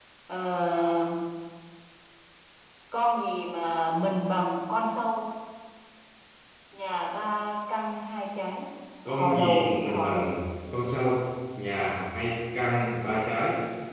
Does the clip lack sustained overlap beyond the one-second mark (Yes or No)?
No